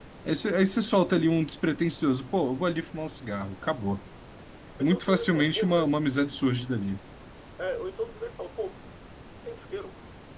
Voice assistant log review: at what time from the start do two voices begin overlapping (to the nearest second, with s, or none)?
5 s